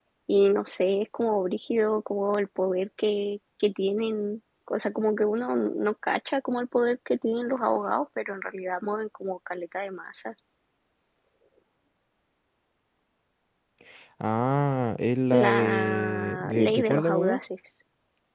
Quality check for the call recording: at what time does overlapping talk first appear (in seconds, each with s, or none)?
15.3 s